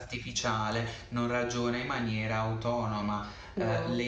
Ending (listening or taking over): listening